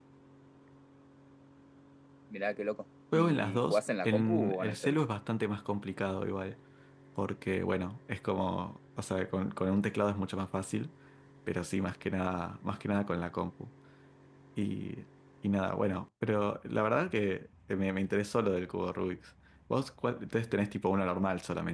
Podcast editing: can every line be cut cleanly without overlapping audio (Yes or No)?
No